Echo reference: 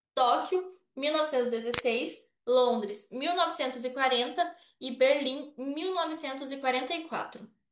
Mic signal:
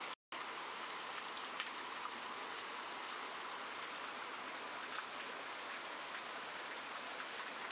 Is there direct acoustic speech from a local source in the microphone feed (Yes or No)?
No